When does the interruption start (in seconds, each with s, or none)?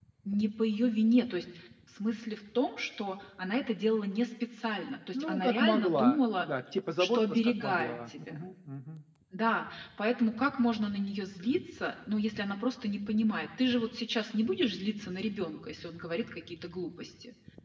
5.1 s